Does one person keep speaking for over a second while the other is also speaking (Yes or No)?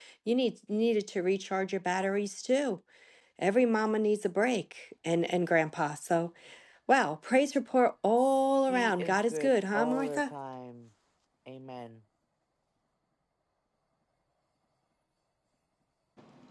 Yes